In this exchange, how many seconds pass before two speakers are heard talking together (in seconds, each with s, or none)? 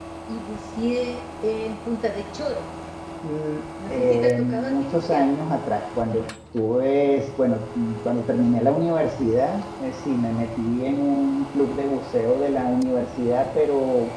3.9 s